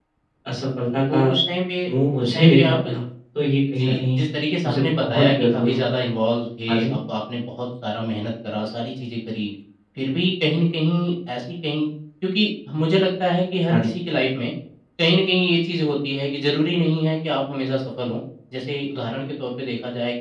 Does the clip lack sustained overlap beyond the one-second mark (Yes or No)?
No